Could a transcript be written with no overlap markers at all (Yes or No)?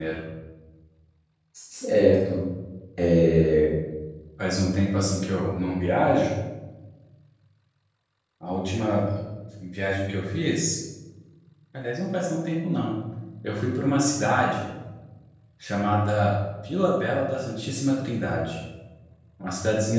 Yes